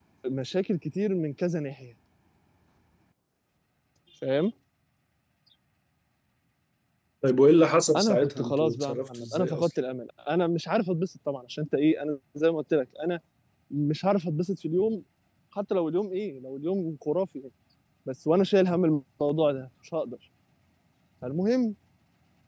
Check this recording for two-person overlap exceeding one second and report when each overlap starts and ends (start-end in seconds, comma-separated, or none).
8.0-9.7